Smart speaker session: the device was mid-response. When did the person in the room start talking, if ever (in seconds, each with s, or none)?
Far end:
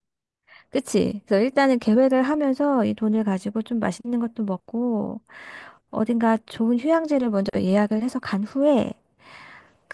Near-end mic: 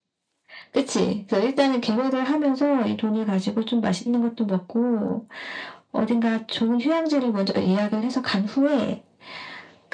none